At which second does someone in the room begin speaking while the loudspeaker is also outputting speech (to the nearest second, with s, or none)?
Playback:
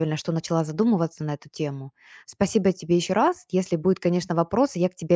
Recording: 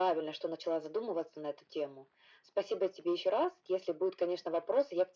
none